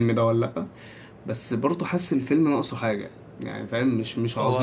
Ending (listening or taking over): taking over